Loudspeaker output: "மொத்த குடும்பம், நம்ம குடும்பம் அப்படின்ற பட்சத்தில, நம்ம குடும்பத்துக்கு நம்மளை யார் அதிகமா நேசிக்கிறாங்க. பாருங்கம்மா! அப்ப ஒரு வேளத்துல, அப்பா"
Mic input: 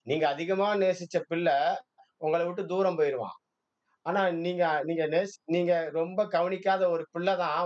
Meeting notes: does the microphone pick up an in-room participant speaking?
Yes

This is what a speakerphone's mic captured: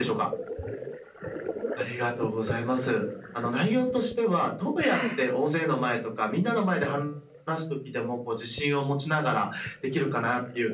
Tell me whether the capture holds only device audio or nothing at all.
No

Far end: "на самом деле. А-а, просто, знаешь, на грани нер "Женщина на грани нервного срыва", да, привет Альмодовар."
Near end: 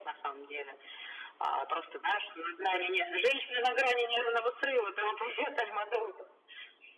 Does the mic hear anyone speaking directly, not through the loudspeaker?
No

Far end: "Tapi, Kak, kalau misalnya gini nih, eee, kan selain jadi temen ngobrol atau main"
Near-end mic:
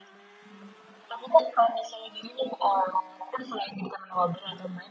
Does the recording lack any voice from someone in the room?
Yes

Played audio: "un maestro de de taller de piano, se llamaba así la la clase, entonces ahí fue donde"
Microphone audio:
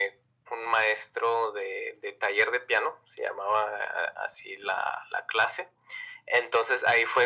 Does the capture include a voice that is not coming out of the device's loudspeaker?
No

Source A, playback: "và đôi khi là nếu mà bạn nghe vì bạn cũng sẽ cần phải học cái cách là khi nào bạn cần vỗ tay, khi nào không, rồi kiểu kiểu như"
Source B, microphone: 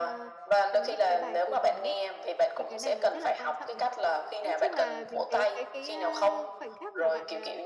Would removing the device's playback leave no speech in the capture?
No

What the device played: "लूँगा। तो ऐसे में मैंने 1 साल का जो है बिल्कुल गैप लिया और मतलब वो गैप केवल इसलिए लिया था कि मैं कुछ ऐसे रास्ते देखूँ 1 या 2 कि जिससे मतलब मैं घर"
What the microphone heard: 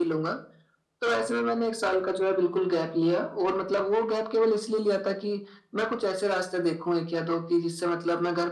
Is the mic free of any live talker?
Yes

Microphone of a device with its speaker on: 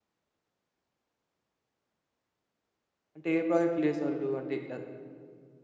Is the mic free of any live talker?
No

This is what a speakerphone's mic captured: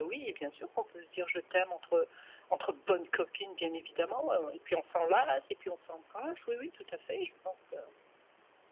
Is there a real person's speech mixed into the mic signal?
No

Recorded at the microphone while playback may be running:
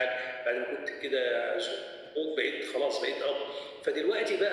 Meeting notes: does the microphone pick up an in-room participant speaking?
No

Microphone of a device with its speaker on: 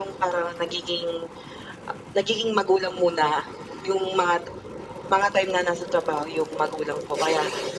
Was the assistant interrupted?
No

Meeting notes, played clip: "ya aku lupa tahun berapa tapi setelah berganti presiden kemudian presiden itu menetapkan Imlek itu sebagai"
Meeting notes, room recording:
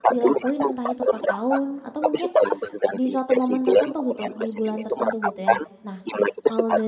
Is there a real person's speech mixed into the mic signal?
Yes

